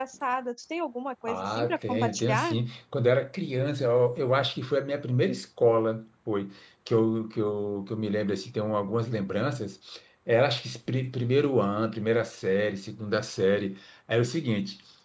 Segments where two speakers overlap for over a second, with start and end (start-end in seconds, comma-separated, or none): 1.3-2.5